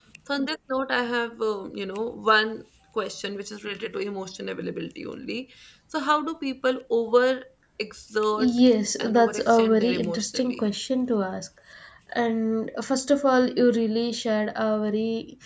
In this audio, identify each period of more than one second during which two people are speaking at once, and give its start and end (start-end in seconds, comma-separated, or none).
9.0-10.6